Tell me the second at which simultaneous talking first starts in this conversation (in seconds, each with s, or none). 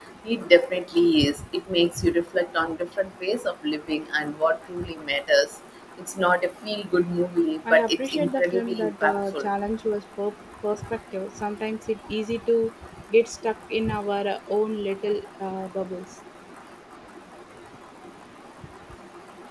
7.7 s